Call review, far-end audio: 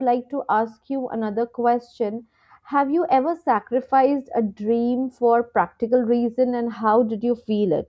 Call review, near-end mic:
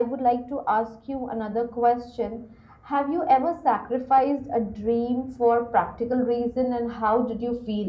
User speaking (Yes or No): No